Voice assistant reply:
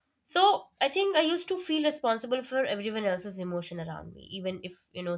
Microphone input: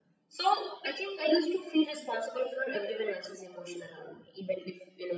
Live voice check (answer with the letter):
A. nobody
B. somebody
A